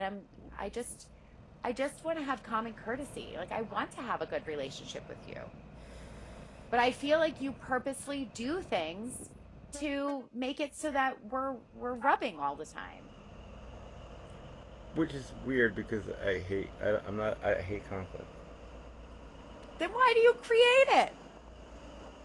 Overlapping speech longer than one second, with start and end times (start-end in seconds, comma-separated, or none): none